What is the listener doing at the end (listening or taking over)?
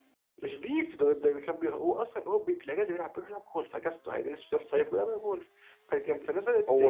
taking over